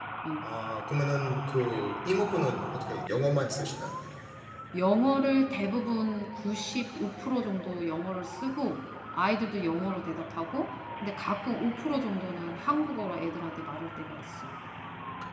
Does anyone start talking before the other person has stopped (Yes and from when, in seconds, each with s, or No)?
No